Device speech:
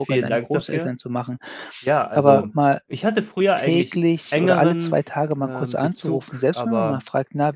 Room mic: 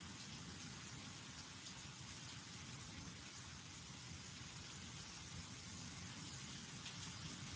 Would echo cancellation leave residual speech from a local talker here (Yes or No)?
No